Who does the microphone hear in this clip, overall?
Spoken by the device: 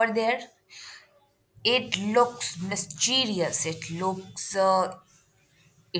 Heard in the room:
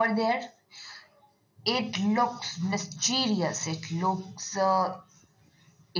echo only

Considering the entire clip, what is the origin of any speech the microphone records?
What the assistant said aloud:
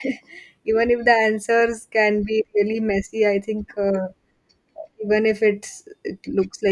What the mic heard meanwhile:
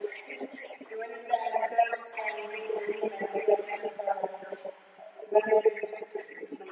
echo only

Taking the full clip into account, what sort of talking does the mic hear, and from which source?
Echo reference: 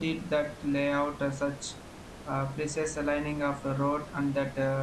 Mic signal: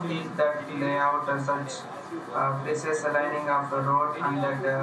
both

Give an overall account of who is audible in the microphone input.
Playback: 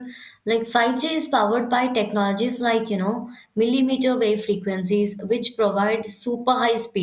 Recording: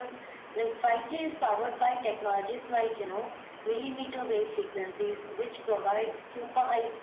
echo only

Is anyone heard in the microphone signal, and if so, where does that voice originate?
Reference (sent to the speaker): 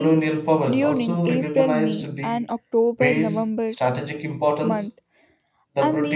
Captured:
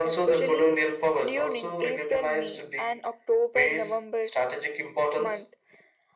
echo only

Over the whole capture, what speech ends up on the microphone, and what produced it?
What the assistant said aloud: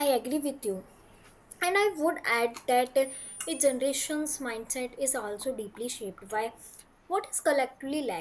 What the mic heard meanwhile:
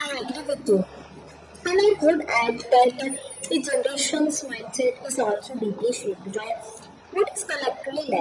echo only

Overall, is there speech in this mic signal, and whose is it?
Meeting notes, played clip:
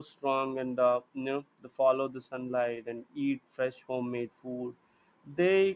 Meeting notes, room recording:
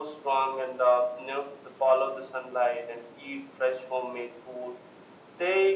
echo only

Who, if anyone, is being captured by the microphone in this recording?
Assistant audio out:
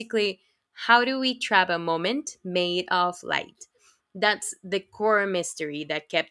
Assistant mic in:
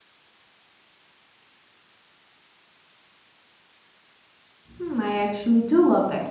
user only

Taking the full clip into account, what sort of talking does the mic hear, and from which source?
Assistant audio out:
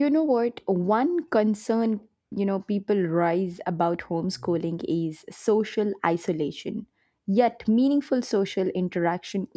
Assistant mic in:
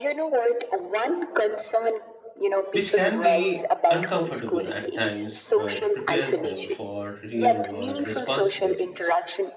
both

